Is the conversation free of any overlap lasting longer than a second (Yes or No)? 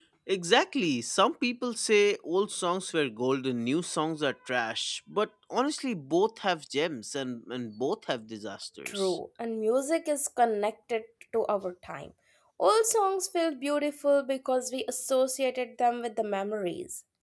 Yes